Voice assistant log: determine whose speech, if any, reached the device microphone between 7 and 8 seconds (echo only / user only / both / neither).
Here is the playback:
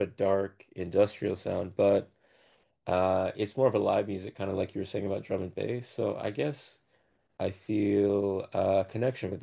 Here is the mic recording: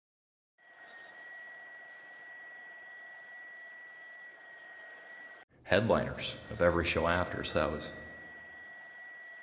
user only